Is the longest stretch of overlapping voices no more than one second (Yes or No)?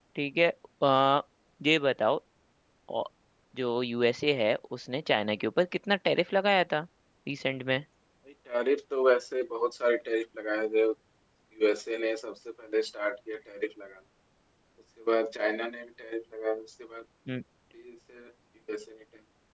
Yes